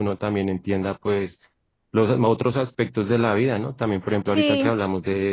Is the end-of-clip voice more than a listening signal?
No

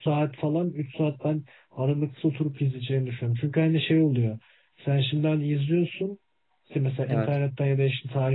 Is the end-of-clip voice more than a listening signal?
No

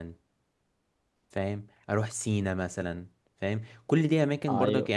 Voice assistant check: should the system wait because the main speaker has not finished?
Yes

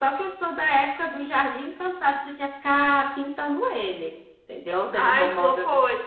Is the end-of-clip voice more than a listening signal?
Yes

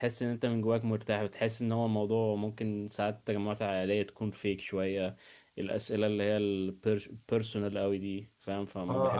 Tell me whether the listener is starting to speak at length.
Yes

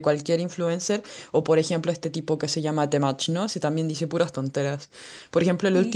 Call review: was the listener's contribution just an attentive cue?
Yes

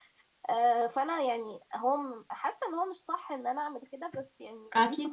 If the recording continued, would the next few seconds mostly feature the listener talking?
Yes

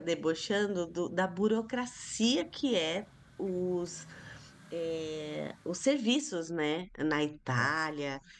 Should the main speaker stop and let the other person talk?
No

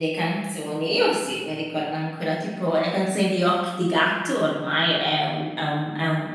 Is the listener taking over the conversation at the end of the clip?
No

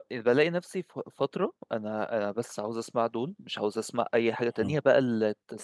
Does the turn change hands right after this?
No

